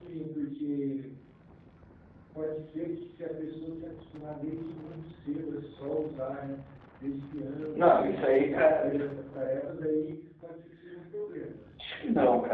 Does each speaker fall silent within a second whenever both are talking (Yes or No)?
No